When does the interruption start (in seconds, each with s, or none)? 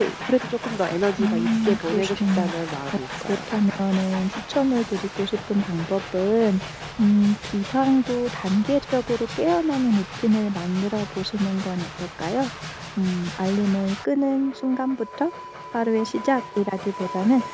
1.2 s